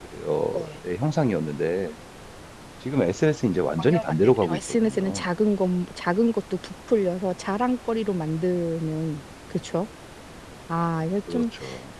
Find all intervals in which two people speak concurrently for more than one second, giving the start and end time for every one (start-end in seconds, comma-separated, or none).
3.8-5.2